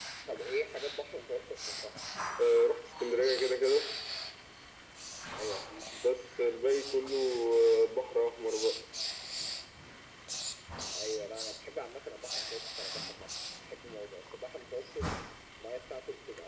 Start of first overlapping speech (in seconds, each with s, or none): none